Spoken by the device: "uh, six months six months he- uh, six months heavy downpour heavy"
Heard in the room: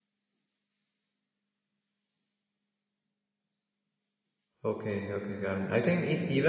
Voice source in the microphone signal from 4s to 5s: user only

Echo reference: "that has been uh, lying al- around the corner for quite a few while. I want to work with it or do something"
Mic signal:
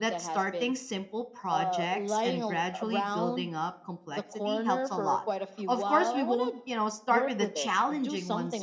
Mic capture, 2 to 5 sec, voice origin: both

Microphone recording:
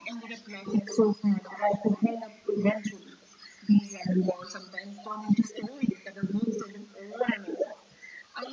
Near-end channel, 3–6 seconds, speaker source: echo only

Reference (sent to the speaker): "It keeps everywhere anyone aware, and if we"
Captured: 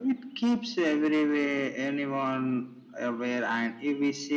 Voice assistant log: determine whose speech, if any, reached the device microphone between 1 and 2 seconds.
echo only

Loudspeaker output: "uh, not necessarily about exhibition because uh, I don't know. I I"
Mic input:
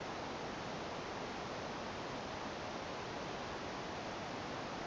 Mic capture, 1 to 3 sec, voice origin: neither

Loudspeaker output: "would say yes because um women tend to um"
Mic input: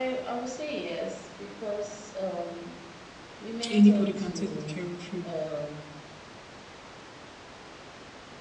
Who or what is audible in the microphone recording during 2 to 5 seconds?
both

